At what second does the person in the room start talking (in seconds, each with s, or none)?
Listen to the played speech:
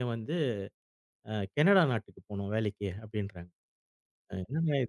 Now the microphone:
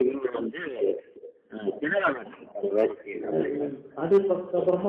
3.4 s